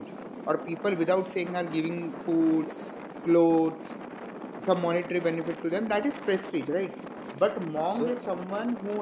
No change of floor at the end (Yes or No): Yes